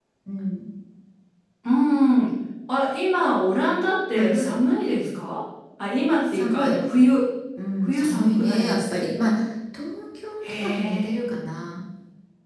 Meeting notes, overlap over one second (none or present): present